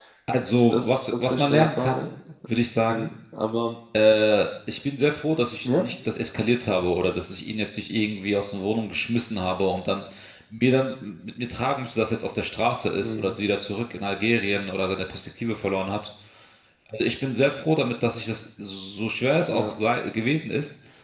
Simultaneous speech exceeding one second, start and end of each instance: 0.5-2.1

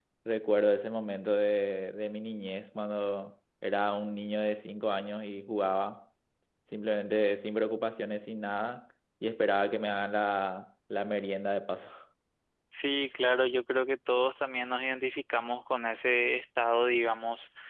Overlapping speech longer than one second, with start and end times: none

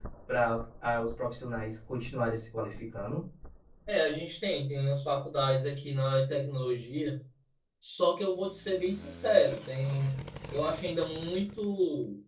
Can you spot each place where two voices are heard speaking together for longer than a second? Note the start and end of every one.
none

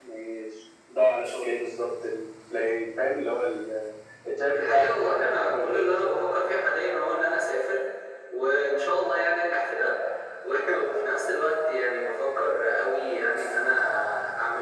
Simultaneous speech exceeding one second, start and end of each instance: 4.5-6.1

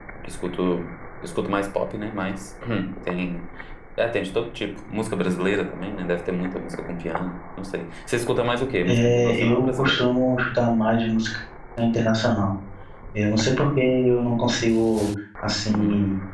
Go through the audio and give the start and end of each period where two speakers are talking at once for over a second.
8.8-10.1

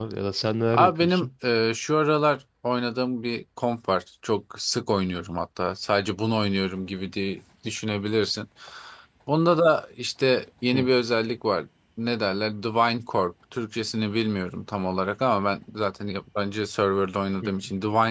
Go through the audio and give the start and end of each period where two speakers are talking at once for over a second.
none

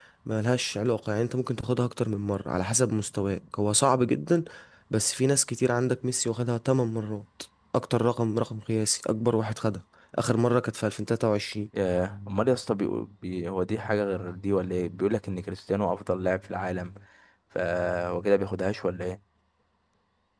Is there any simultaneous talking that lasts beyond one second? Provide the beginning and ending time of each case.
none

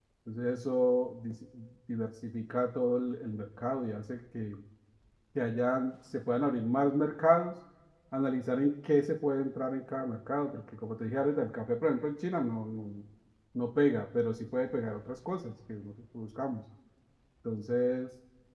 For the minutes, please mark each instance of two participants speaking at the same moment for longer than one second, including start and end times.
none

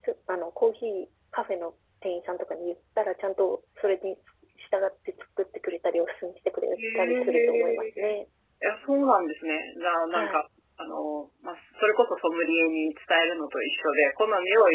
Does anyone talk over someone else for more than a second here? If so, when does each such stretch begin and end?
6.7-8.2

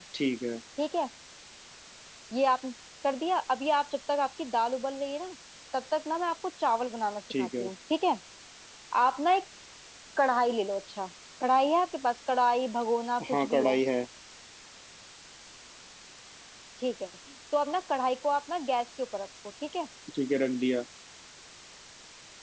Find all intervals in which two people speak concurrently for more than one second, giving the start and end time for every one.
none

